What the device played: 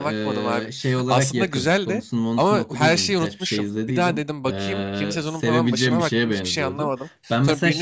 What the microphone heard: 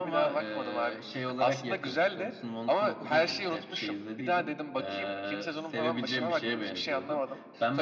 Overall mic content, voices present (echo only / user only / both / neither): echo only